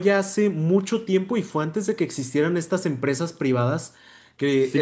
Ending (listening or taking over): taking over